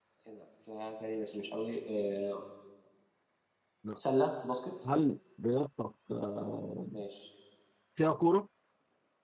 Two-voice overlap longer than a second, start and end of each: none

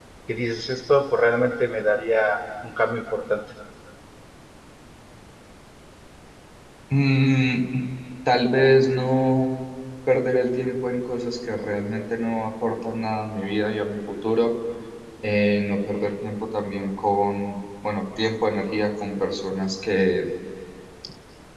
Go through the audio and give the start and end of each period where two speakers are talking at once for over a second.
none

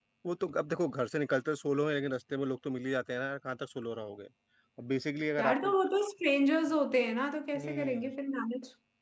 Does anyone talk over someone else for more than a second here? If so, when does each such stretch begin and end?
none

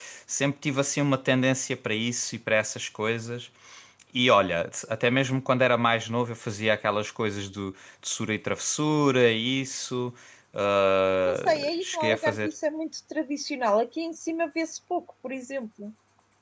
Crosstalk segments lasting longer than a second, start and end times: 11.3-12.5

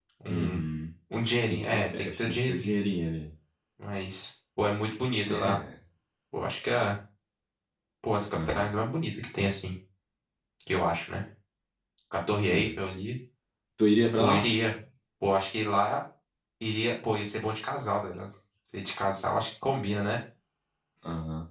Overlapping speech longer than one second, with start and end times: 1.5-2.7

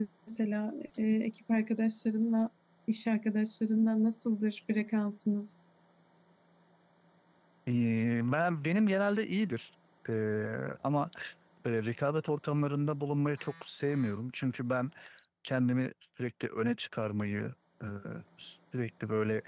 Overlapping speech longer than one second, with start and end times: none

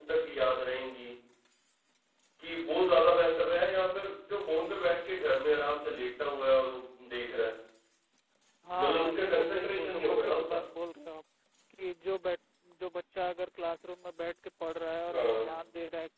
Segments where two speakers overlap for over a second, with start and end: 8.8-10.6

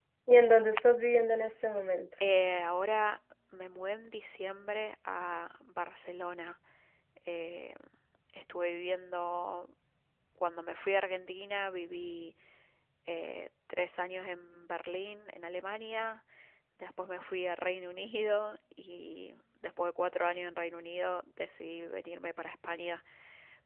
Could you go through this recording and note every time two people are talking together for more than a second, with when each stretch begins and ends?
none

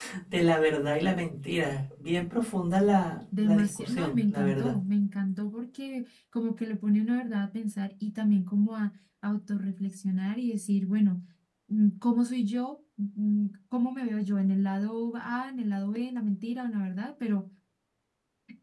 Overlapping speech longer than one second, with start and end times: 3.4-4.8

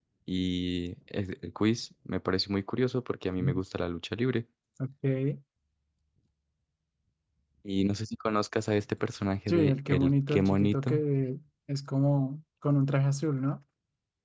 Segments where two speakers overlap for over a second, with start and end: 9.5-11.0

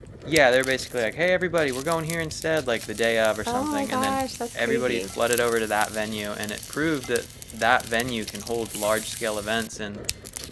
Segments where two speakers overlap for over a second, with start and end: 3.5-5.1

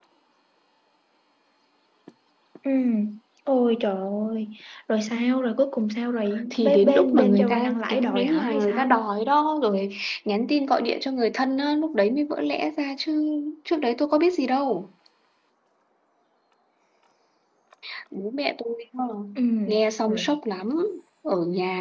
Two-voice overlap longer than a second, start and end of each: 6.5-9.0

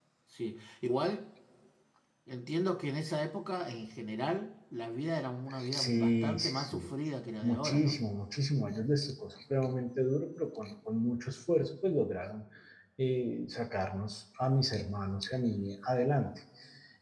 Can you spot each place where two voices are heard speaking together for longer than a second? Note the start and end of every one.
5.7-6.9

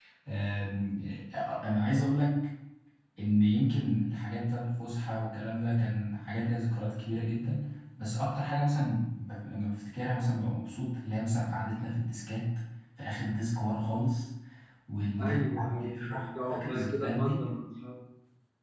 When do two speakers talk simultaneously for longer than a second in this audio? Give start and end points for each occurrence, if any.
15.2-17.4

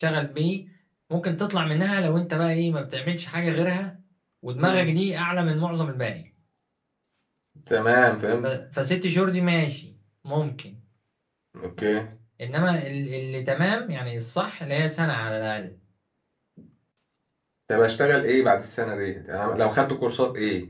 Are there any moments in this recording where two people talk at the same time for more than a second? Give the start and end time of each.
none

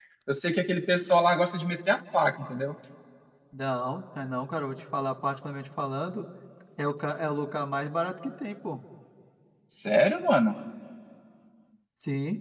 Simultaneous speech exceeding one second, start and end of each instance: none

